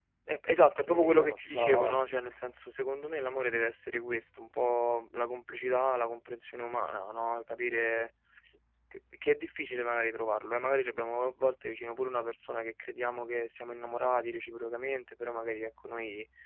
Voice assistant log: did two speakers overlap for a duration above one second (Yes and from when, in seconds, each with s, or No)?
Yes, from 0.6 s